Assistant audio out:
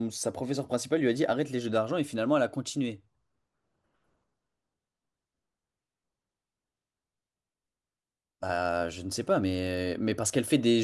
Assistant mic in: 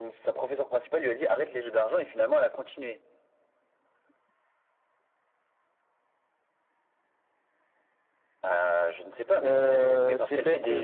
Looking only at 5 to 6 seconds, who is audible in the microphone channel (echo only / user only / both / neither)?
neither